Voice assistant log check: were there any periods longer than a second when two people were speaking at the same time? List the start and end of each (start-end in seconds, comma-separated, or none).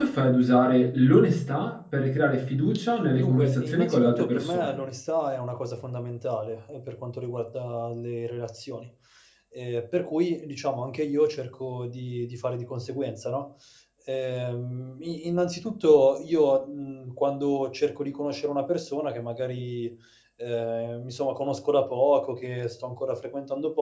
3.2-4.8